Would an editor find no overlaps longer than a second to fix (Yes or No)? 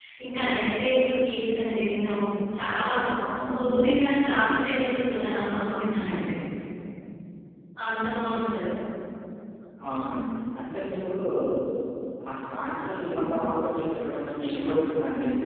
Yes